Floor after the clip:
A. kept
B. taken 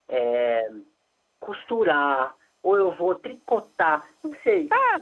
B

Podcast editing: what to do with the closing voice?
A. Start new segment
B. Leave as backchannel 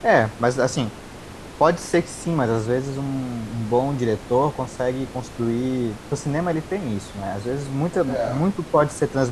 B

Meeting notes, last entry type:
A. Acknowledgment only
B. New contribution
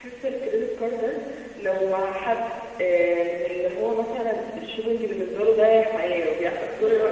A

